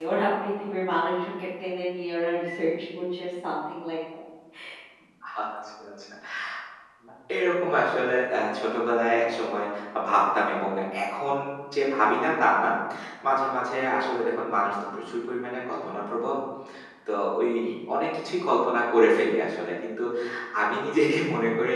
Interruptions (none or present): none